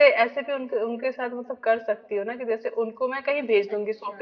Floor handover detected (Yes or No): No